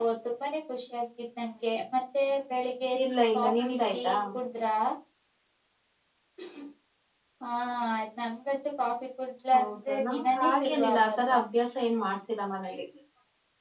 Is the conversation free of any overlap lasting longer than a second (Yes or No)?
No